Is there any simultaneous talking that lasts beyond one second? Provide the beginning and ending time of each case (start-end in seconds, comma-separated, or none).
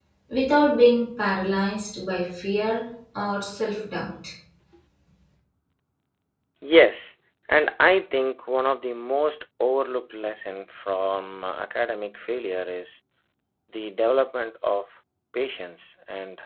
none